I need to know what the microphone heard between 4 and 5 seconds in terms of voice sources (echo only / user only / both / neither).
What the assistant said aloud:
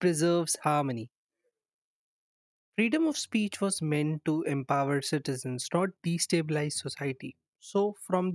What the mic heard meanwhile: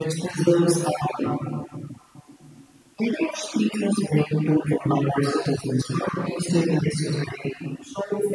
echo only